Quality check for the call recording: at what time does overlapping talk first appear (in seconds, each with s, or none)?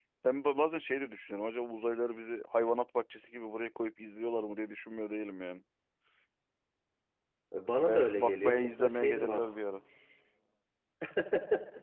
7.9 s